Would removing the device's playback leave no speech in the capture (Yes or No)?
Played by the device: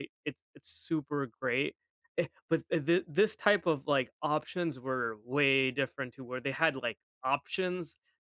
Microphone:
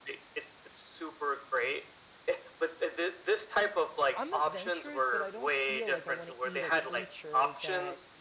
No